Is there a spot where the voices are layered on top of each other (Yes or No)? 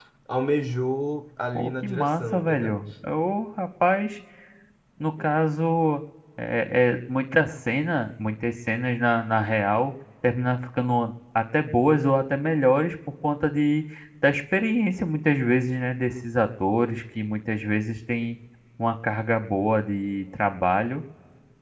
Yes